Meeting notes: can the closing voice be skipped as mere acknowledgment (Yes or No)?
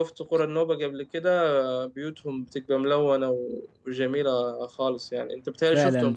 No